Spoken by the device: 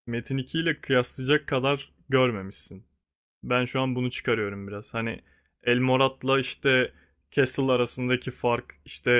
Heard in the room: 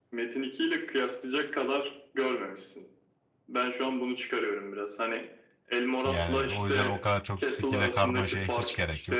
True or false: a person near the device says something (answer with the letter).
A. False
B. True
B